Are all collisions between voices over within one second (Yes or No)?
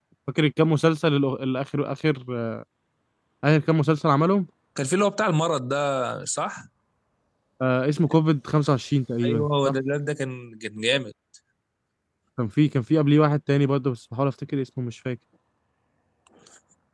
Yes